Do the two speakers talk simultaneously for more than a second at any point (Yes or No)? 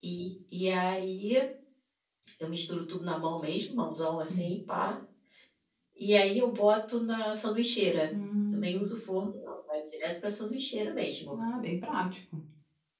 No